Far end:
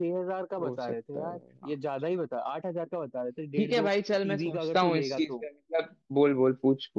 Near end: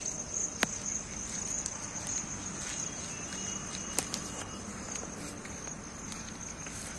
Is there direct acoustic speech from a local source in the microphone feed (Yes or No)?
No